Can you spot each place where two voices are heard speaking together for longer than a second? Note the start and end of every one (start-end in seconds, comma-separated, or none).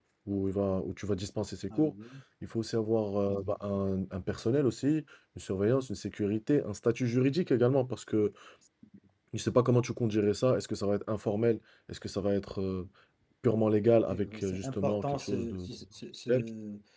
14.1-15.6